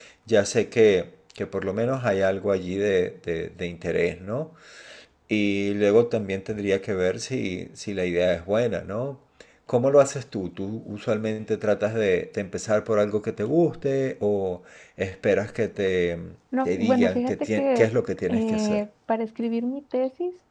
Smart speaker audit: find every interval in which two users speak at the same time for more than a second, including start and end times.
16.6-17.9

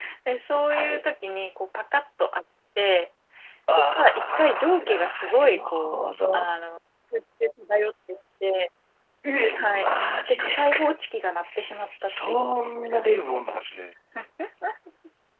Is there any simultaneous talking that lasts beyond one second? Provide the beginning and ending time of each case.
3.7-6.0, 9.6-10.8

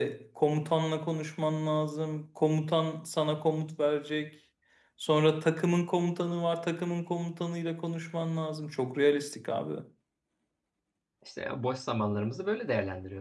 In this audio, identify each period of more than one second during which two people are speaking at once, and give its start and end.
none

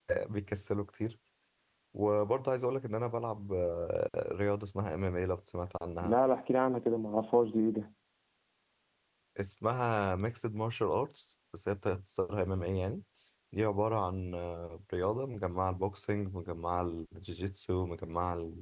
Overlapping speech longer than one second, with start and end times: none

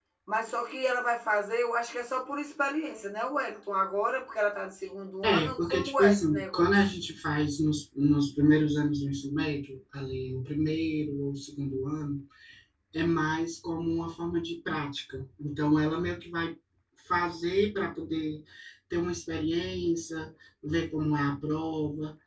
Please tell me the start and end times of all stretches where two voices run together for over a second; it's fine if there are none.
5.2-6.7

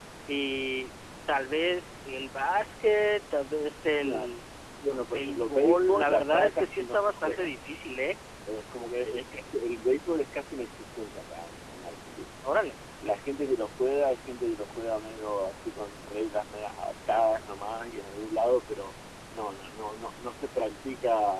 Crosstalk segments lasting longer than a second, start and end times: 5.1-7.5

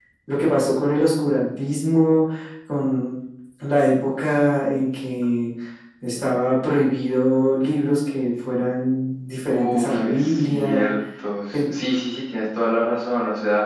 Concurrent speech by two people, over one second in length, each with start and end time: 9.5-10.9

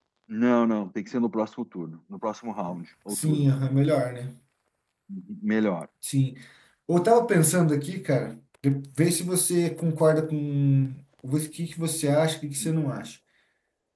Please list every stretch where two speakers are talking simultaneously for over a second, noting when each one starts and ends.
none

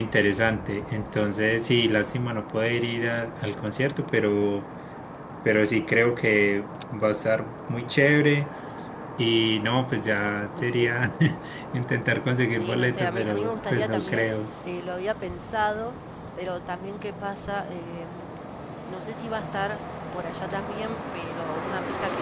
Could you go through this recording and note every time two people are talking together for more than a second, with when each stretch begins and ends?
12.5-14.3

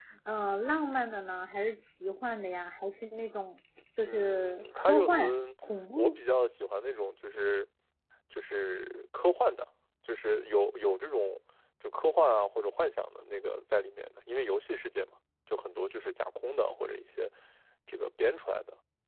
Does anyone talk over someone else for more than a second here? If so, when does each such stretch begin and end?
4.0-5.3

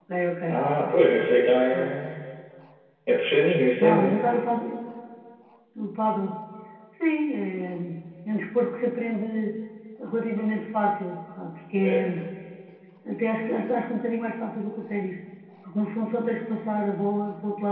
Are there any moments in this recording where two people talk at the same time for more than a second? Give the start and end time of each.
none

